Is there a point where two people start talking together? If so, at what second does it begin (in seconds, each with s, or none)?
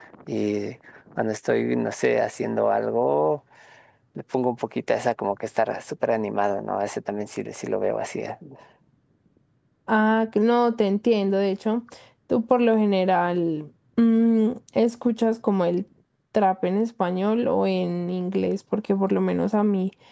none